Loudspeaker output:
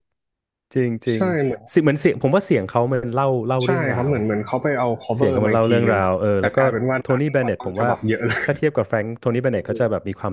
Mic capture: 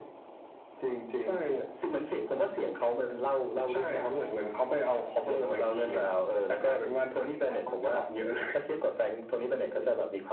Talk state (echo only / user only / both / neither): echo only